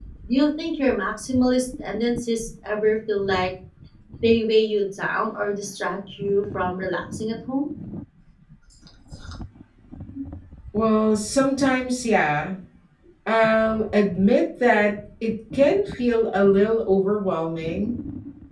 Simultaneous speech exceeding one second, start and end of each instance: none

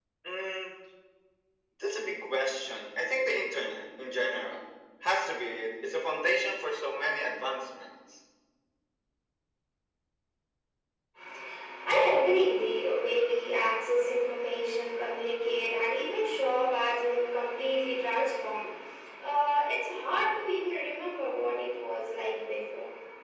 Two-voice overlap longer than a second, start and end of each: none

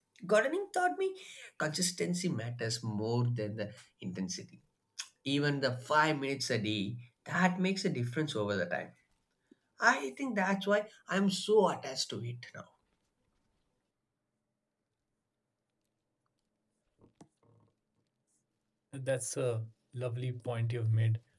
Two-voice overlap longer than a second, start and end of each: none

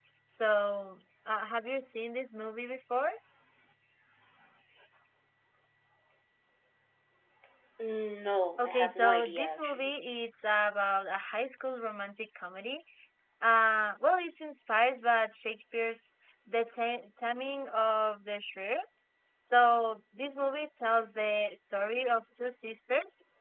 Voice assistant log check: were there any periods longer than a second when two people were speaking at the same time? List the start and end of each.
8.6-9.9

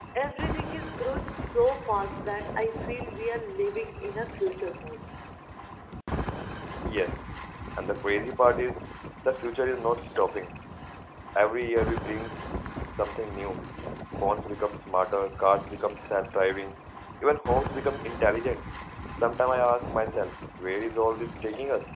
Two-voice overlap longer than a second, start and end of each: none

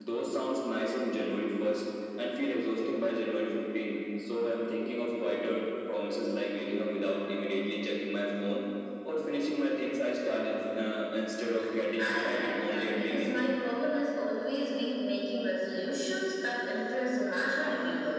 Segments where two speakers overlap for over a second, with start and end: 12.0-13.4

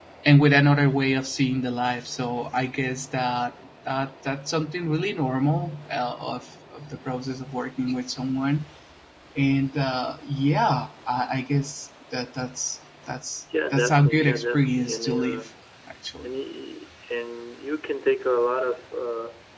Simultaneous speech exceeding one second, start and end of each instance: 13.7-15.4

